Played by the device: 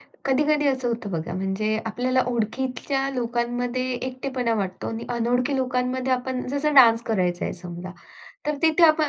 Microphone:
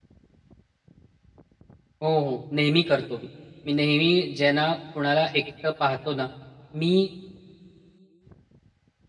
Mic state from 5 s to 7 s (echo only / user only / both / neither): user only